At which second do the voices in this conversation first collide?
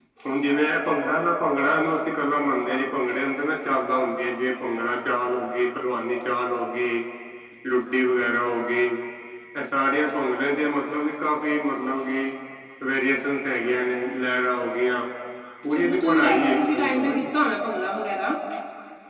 15.7 s

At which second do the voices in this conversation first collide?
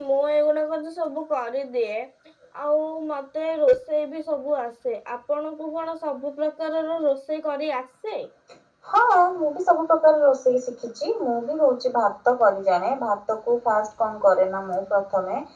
none

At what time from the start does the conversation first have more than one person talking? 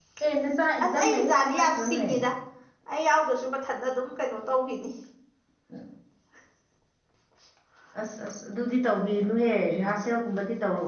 0.8 s

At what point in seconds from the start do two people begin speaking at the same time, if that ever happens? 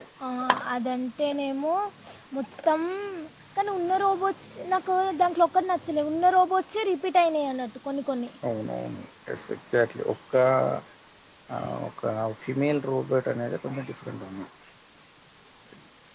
none

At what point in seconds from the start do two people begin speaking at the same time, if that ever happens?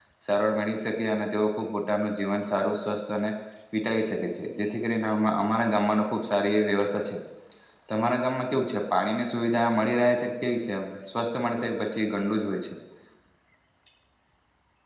none

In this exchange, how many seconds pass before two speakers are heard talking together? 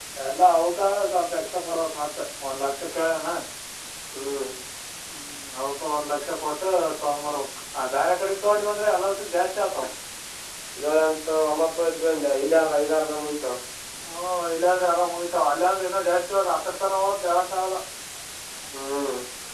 none

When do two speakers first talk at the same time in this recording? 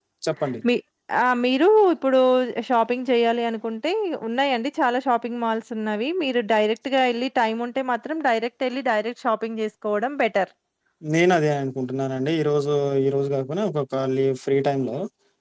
none

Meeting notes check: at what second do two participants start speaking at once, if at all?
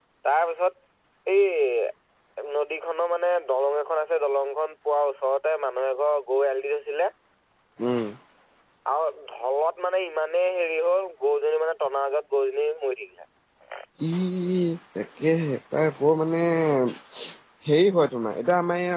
none

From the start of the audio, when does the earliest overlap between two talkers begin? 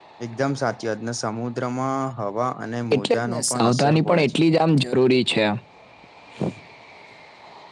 2.9 s

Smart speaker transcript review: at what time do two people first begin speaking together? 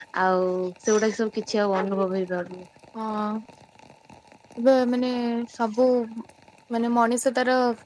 none

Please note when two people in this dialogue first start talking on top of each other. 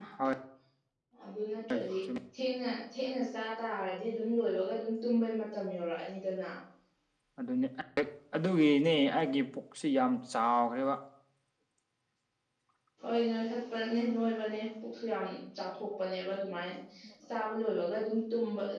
none

